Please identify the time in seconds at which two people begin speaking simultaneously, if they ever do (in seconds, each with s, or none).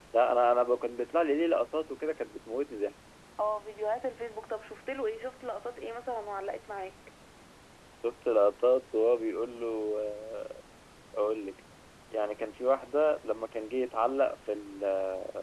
none